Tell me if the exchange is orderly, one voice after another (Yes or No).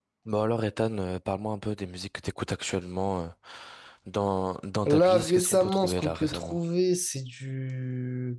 No